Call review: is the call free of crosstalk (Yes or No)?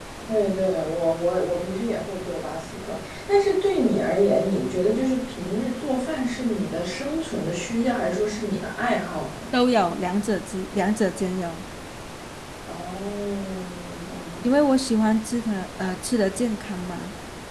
Yes